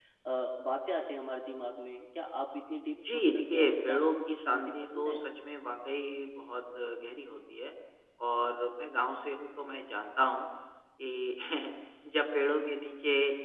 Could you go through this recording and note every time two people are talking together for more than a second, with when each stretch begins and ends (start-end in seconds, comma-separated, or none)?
3.1-5.2